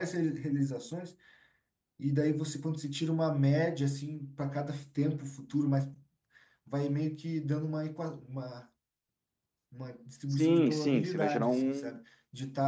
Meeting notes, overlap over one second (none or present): present